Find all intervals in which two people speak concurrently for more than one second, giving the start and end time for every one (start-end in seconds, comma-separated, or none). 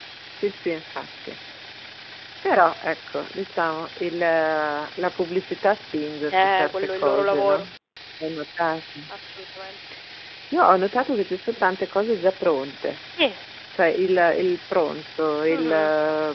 6.3-7.7